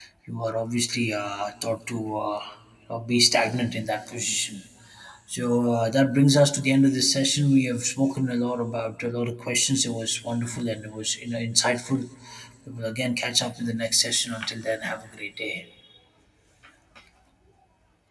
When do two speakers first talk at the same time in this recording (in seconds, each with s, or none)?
none